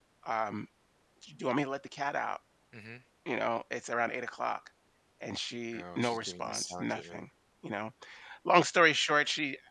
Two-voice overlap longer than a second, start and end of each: 5.7-7.2

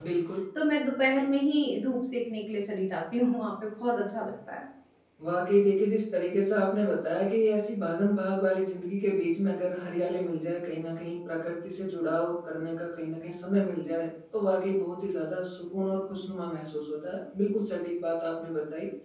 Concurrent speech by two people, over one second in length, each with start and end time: none

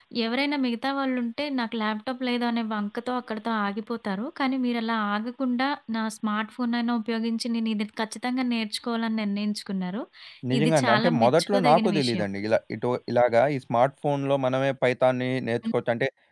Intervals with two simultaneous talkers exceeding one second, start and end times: 10.6-12.2

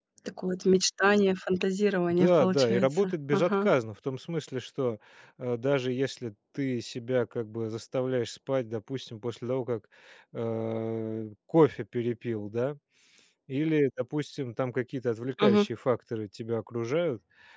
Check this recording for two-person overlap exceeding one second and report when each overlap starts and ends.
2.1-3.7

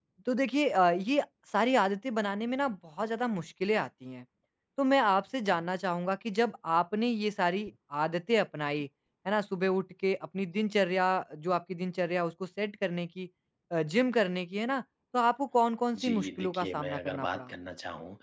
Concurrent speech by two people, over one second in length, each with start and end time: 16.0-17.5

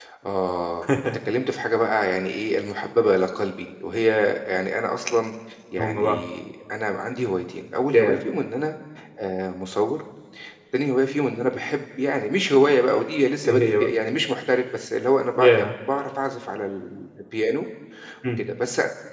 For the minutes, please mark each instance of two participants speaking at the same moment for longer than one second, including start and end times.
none

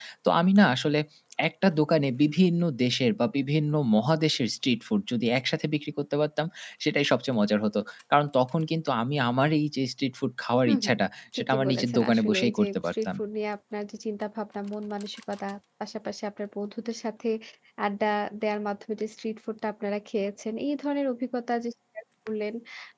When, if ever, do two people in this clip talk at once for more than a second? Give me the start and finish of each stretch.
11.4-13.1

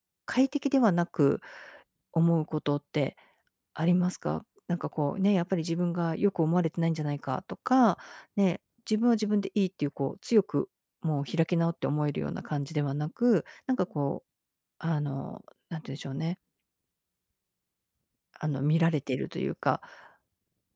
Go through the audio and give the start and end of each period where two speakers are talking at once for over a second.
none

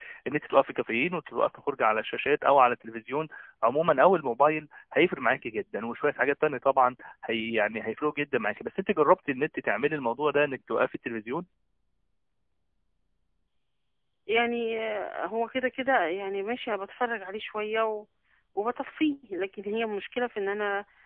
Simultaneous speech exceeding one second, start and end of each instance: none

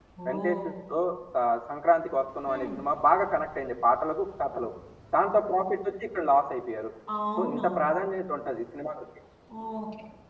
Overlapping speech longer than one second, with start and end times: none

